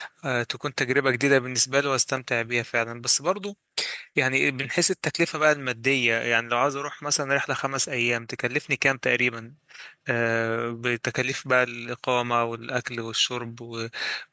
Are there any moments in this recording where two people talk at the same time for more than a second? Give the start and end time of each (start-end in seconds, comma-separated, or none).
none